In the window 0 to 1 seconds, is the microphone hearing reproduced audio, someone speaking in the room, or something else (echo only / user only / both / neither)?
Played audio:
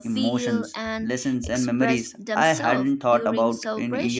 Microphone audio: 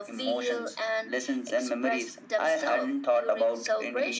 echo only